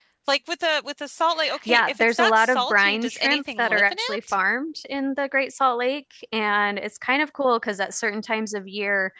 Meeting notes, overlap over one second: present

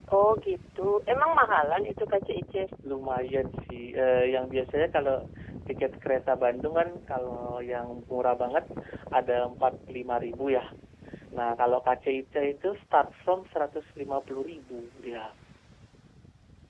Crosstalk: none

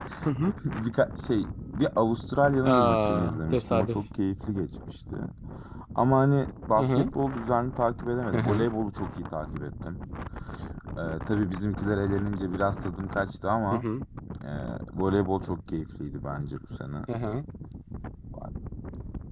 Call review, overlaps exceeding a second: present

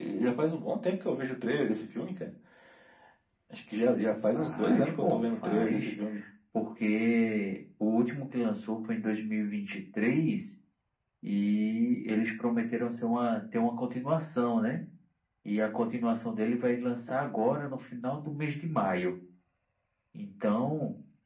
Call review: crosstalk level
present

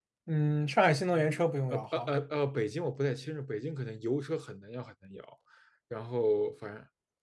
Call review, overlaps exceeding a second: none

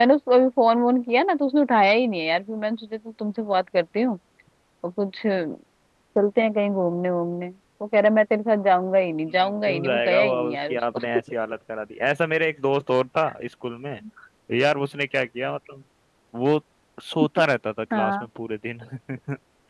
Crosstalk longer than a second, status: present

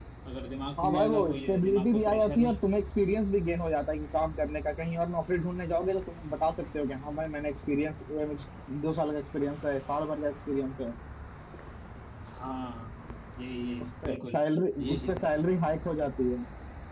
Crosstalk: present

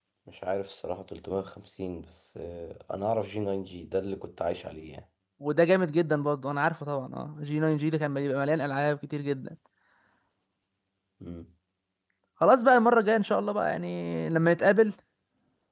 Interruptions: none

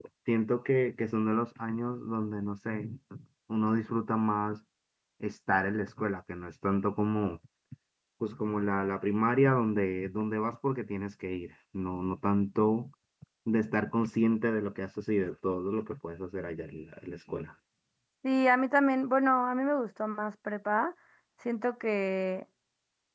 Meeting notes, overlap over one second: none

